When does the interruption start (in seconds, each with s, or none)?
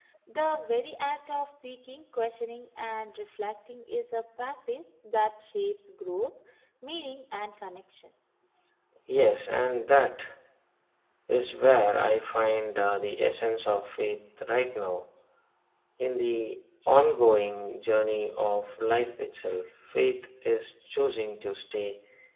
none